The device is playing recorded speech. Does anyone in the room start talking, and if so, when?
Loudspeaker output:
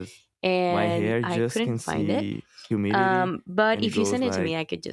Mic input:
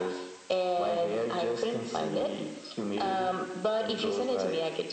none

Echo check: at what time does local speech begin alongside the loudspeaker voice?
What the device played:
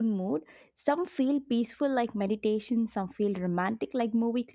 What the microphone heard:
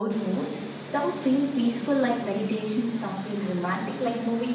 none

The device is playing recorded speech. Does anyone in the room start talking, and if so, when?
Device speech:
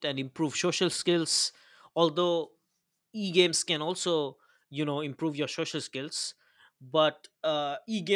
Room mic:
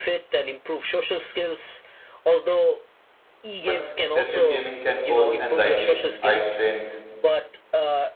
3.6 s

